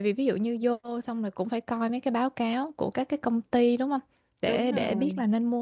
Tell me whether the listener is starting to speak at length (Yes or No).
No